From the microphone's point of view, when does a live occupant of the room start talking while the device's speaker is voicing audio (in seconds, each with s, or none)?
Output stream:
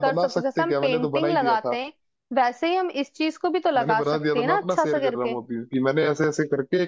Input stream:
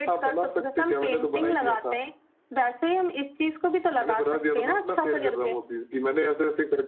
none